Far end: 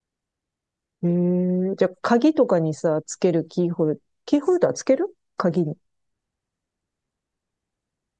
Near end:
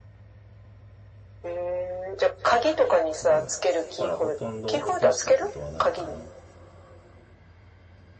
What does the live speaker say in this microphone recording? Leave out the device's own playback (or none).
うん。だからほとんど落としたことはないかな。